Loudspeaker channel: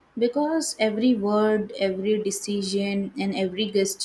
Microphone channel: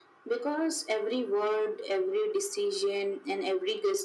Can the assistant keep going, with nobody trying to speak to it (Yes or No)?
Yes